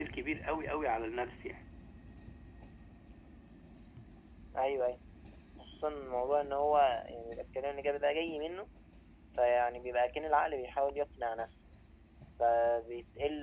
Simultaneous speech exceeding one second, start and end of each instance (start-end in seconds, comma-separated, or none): none